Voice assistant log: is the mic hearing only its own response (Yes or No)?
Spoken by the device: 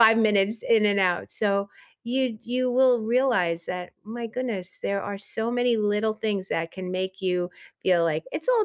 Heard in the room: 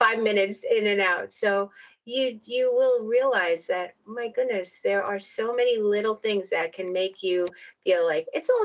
Yes